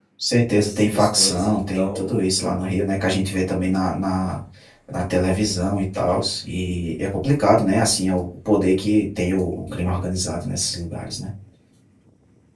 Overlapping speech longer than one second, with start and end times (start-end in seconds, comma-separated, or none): 0.6-2.2